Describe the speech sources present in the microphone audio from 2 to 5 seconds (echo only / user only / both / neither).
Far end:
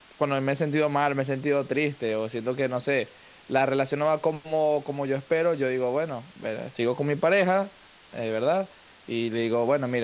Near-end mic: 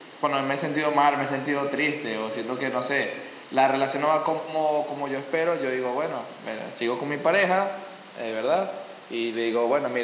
echo only